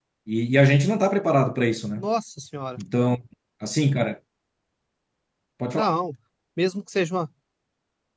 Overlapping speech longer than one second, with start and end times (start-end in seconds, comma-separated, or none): none